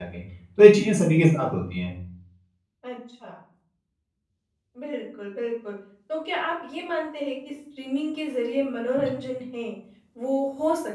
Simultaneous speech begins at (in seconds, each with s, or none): none